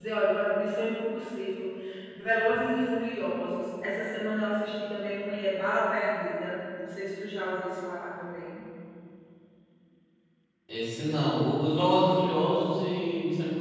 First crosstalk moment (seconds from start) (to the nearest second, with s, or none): none